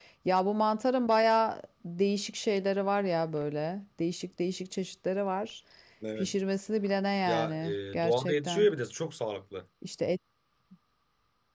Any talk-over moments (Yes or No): Yes